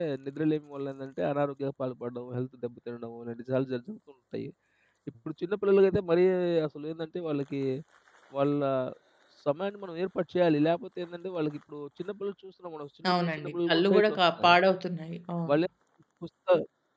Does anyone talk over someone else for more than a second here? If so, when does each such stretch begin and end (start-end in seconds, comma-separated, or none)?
13.1-14.5